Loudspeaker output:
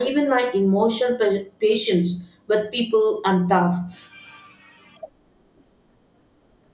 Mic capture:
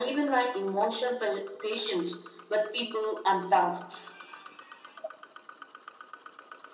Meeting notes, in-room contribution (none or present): none